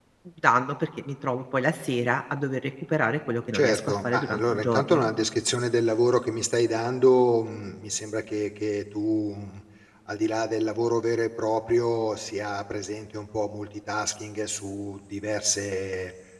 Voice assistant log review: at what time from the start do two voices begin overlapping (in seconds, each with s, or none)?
3.5 s